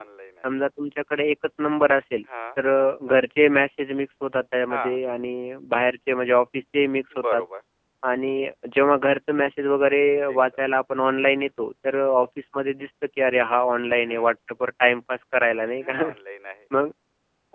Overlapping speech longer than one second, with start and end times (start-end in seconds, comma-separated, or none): none